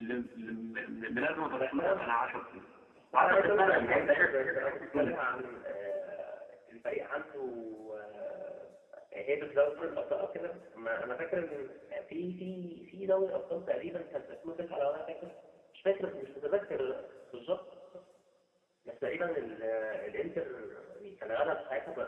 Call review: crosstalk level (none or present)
present